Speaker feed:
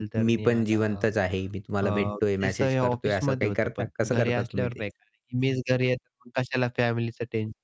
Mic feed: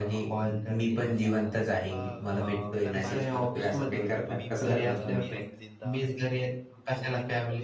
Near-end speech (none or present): present